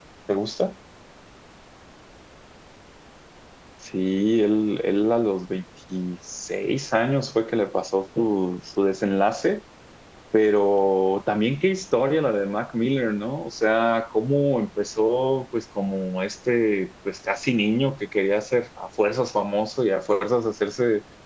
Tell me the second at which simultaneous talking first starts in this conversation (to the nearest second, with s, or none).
none